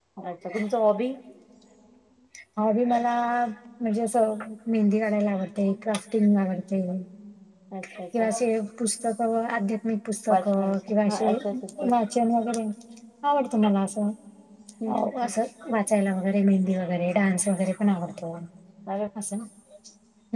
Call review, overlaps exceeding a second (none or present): none